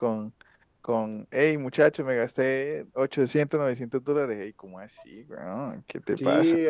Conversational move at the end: taking over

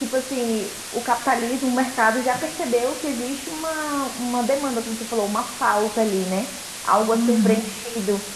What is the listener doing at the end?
listening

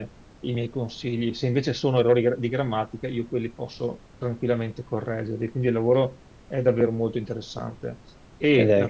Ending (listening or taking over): listening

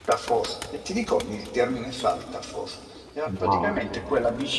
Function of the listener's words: listening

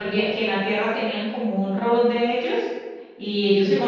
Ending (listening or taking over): listening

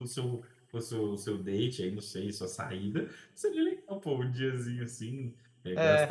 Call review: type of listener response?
listening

